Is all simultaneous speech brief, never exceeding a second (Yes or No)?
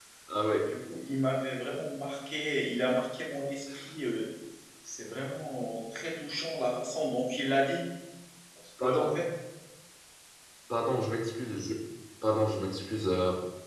Yes